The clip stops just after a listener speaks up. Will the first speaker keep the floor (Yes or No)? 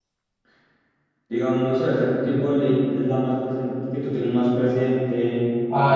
No